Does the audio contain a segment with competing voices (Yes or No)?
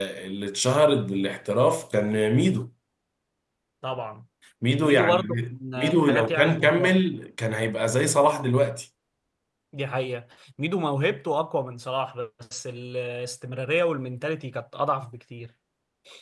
Yes